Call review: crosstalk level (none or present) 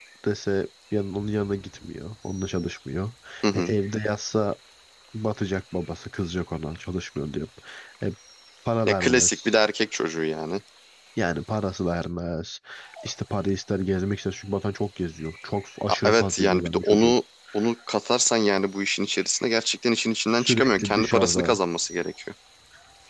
present